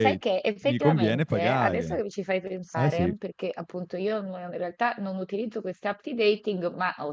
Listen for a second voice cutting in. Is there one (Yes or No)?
Yes